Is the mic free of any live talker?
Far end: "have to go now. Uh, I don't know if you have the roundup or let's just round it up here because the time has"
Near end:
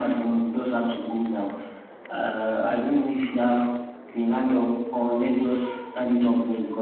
Yes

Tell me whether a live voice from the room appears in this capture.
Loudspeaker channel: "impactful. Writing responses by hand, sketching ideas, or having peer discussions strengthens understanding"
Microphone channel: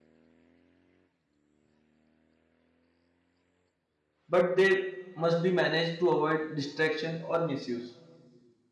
Yes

